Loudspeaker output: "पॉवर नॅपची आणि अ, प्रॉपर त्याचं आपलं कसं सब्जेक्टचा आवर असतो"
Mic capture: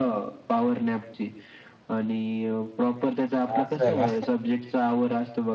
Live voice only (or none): असं का?